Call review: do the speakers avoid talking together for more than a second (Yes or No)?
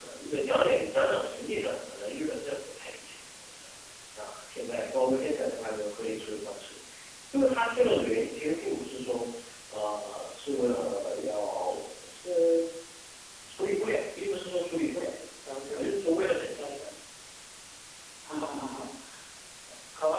Yes